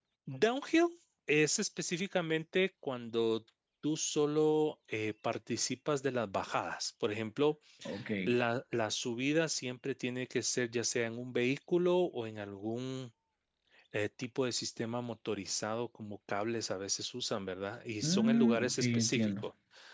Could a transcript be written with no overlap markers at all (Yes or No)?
No